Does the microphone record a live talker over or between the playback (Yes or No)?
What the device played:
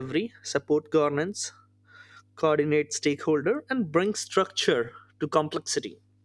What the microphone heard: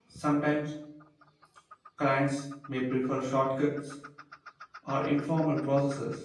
Yes